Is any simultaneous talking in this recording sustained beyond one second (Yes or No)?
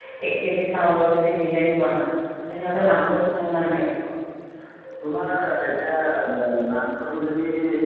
No